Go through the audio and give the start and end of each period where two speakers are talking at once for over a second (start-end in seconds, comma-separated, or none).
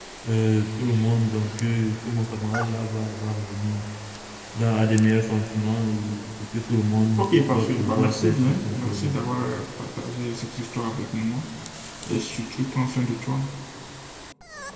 7.2-9.2